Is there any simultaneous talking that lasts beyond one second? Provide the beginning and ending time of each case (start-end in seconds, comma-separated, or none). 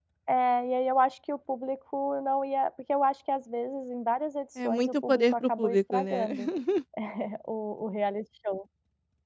4.7-6.3